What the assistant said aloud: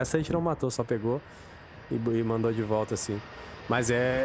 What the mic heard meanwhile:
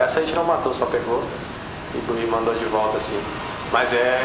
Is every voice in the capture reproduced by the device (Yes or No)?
Yes